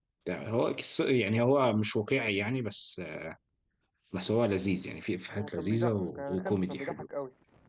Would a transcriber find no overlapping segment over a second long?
No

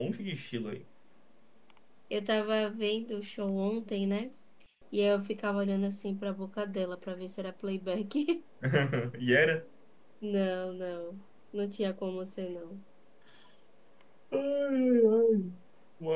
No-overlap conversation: Yes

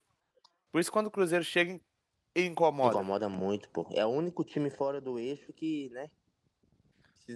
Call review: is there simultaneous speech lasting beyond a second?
No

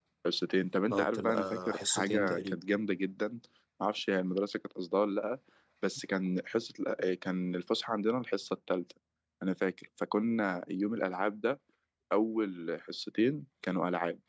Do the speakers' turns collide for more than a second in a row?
Yes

